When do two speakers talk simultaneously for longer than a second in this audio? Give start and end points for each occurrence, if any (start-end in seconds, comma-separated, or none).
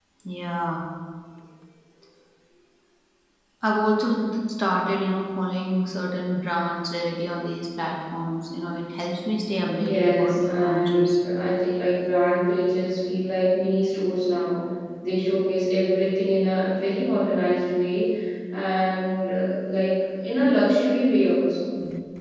9.8-11.2